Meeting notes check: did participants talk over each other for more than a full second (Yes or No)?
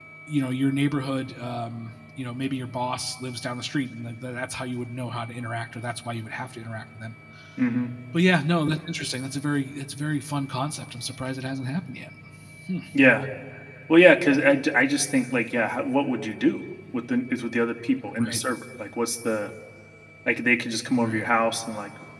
No